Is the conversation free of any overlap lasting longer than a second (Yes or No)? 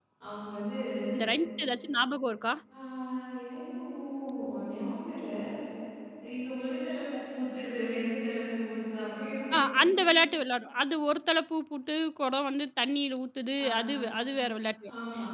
Yes